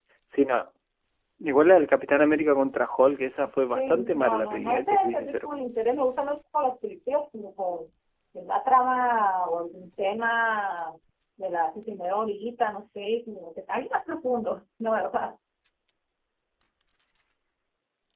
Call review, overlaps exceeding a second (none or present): present